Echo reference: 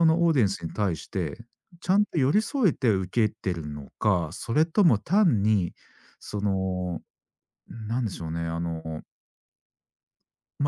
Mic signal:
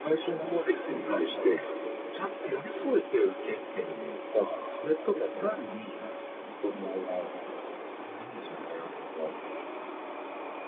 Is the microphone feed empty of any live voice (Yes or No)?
Yes